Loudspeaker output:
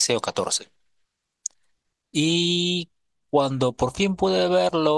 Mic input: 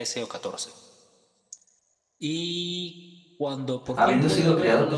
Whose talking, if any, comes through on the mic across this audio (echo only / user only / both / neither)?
both